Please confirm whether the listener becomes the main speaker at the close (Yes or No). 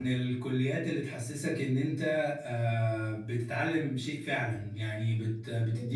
No